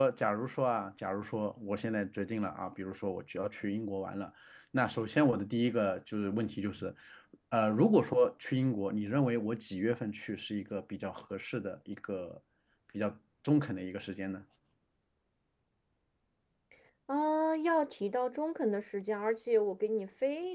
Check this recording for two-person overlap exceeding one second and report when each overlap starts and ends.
none

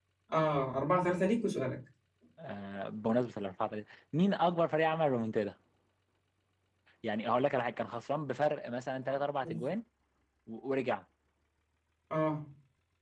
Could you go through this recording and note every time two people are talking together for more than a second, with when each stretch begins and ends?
none

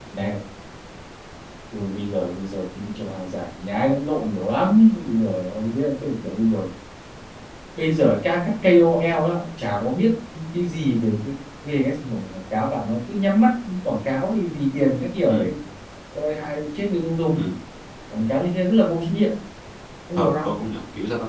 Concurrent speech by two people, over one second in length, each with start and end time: none

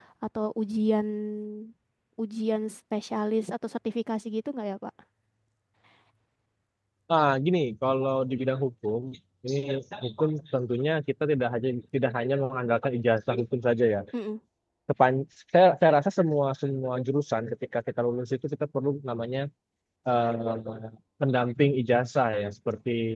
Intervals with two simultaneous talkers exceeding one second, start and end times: none

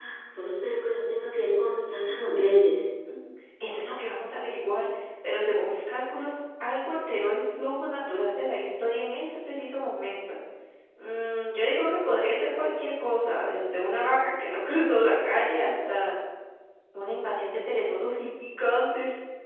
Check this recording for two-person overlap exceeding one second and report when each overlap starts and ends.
none

